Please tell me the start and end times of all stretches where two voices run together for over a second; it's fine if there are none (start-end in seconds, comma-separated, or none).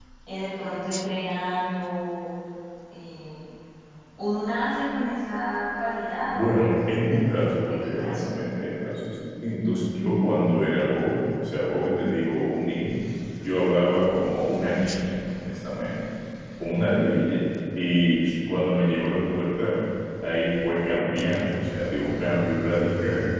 6.3-8.2